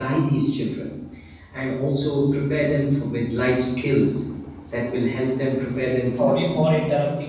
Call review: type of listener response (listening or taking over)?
taking over